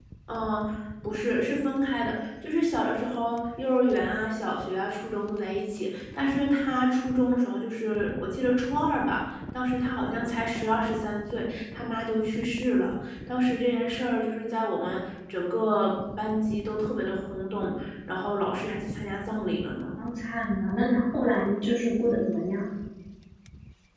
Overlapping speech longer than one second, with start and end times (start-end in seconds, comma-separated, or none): none